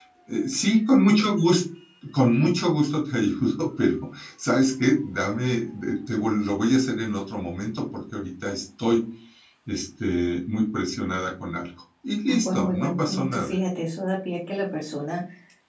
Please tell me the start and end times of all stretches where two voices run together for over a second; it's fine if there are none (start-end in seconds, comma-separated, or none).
12.3-13.6